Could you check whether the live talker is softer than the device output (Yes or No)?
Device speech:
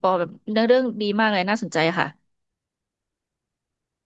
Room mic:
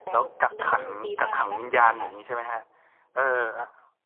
No